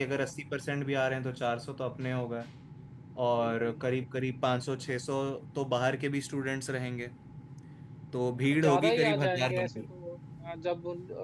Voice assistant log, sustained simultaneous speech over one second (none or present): present